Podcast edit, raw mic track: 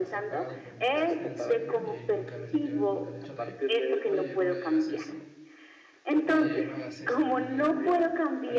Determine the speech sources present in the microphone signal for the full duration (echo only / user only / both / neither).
both